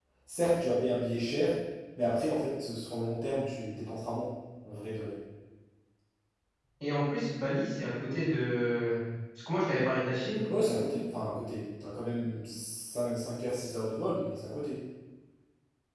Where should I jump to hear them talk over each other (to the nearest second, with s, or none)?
none